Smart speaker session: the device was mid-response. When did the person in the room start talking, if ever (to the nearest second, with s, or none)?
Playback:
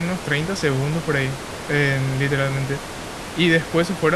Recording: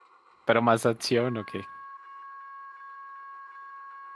0 s